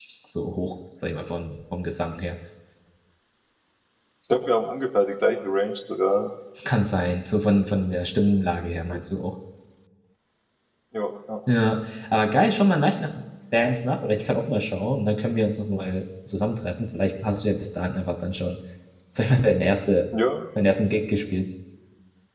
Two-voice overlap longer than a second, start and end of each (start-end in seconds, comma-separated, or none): none